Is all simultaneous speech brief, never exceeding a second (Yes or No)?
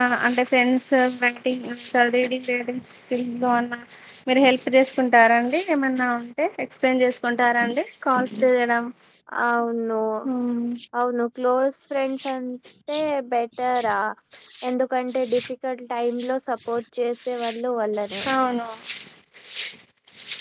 Yes